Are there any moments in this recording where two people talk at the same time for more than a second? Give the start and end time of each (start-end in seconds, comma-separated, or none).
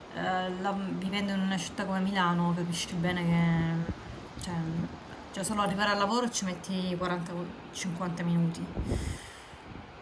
none